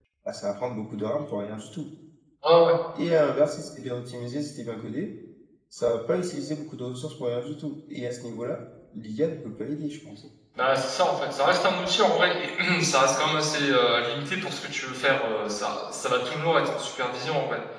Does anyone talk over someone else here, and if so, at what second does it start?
none

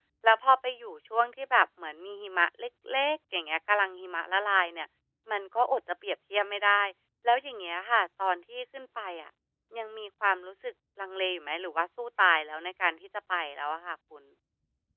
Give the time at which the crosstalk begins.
none

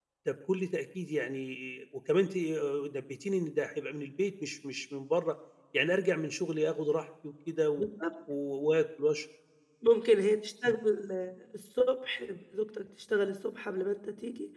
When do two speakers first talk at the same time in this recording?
none

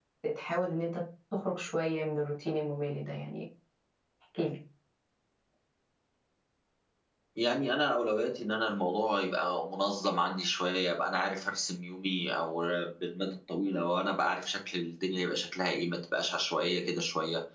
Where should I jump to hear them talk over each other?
none

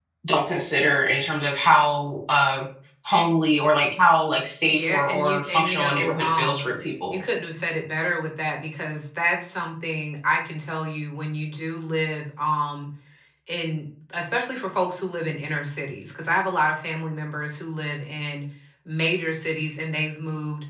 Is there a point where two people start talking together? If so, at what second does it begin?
4.7 s

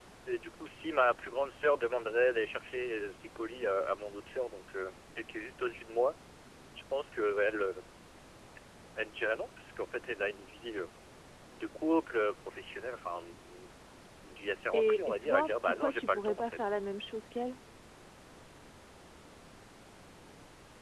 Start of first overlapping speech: 14.7 s

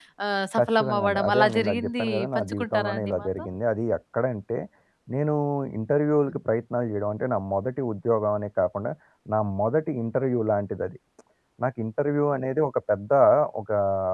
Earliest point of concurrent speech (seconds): 0.6 s

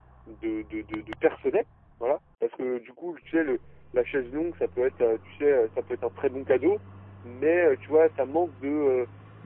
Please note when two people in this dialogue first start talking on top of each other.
none

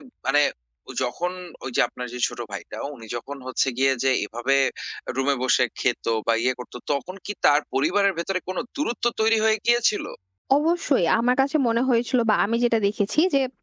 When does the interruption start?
none

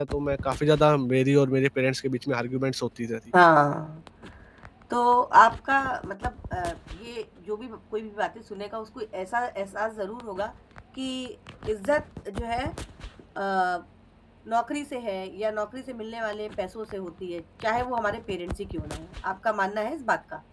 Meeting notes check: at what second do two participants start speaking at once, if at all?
none

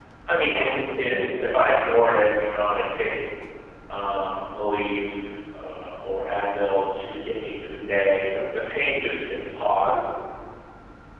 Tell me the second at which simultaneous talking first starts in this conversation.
0.5 s

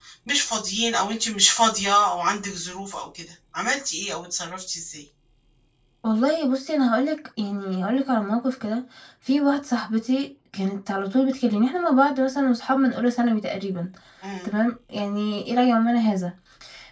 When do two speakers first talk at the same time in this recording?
none

